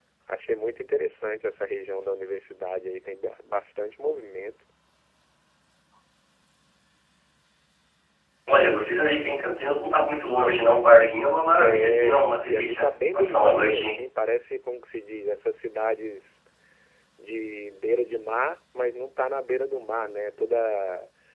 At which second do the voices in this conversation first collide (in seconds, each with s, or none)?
11.6 s